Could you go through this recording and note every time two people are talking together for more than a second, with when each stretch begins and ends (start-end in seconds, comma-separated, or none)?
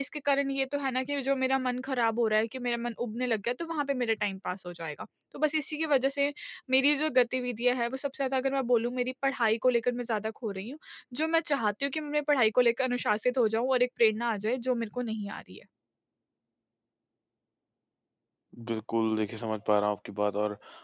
none